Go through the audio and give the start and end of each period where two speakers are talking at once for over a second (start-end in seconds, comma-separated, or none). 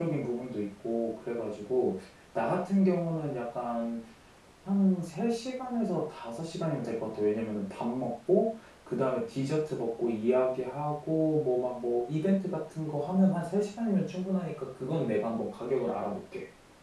none